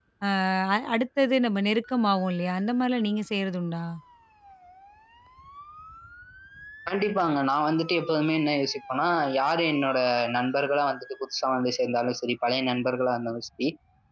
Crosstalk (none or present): none